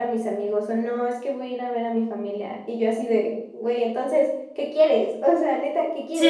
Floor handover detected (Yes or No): No